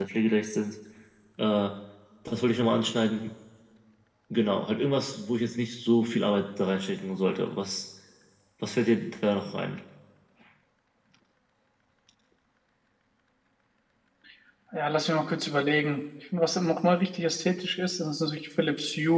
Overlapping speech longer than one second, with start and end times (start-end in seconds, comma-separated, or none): none